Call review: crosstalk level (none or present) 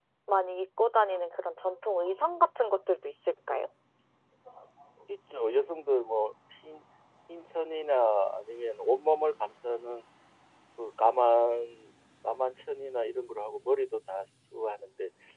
none